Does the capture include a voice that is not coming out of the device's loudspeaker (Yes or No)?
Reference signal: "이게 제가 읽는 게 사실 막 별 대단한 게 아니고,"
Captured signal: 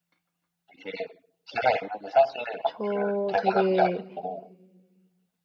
Yes